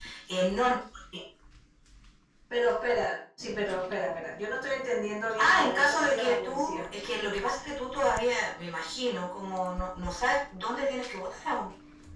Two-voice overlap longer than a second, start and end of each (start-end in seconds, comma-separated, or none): 5.4-6.8